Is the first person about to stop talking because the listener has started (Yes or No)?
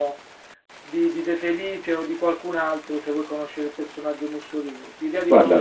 No